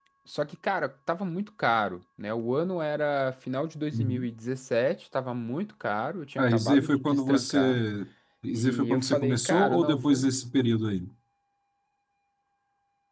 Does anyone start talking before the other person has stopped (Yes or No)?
Yes